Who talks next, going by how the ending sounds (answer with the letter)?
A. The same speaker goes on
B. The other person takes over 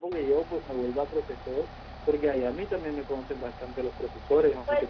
B